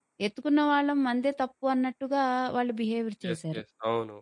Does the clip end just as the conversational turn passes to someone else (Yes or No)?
Yes